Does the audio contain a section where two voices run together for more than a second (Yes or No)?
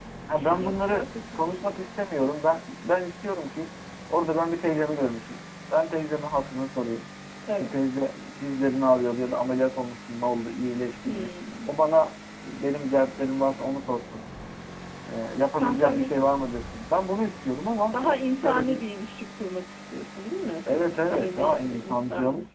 Yes